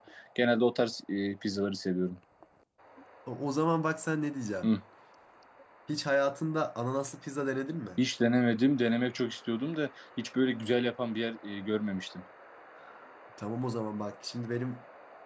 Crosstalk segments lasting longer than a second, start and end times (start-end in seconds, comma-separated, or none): none